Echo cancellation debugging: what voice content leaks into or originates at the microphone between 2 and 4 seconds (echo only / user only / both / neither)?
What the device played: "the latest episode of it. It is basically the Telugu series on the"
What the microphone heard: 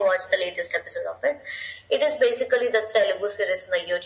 echo only